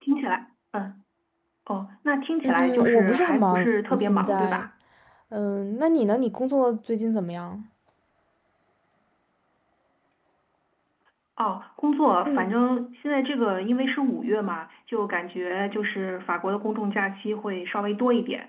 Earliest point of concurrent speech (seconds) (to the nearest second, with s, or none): 2 s